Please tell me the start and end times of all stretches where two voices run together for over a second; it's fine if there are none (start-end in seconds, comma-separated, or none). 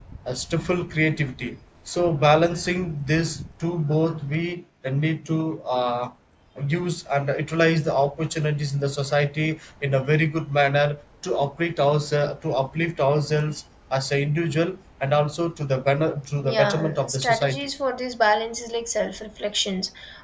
16.4-17.7